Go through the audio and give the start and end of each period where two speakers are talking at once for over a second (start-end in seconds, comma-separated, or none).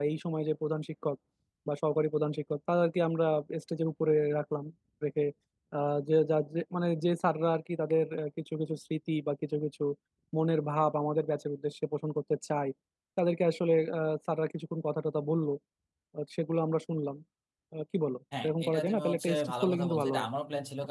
18.4-20.3